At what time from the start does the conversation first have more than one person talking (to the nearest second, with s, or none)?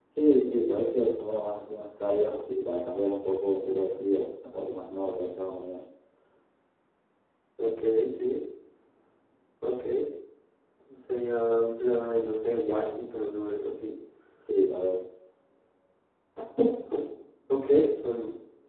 none